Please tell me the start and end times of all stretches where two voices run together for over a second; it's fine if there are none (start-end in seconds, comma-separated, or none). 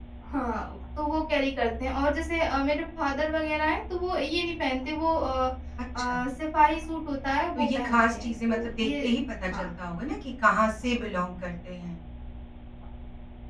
7.5-8.9